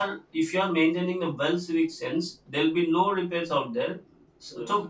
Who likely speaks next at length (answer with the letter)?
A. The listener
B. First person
B